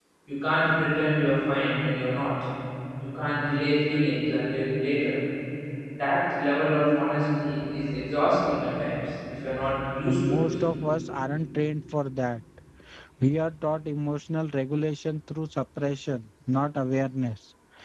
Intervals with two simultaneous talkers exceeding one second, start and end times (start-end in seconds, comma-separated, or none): none